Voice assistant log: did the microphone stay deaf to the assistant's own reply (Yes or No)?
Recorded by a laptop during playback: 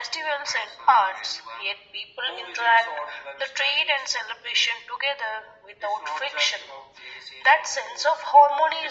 No